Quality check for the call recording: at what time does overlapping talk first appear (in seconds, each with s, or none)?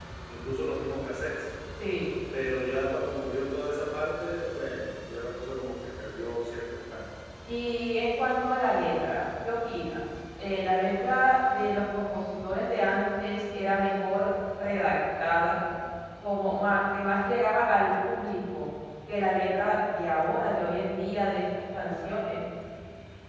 none